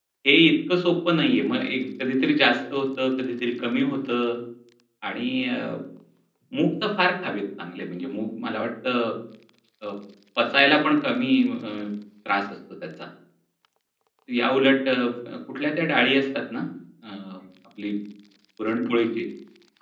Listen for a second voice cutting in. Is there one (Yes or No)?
No